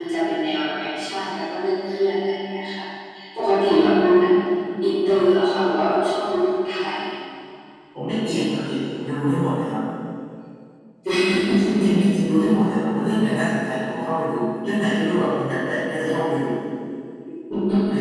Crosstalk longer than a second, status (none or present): none